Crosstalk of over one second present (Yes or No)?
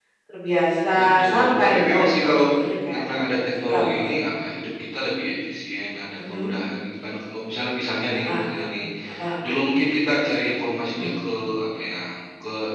Yes